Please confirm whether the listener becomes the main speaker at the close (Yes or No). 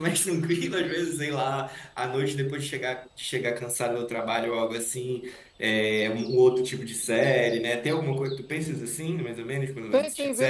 Yes